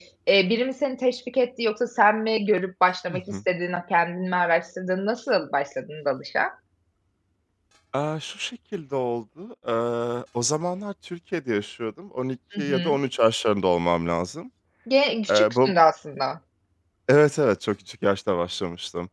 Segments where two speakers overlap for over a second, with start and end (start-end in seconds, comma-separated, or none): none